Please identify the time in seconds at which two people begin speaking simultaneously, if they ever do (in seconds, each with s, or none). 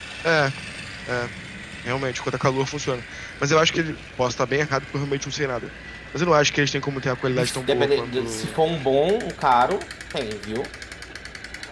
7.3 s